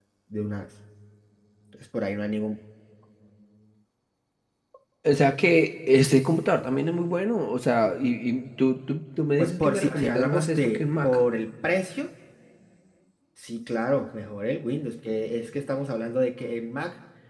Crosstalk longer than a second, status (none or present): present